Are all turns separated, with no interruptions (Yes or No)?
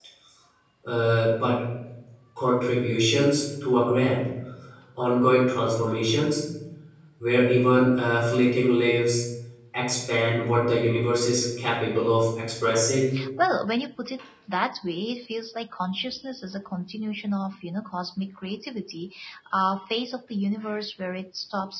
Yes